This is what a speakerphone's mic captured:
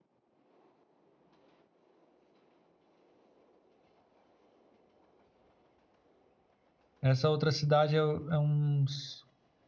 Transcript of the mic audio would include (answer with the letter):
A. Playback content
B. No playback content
B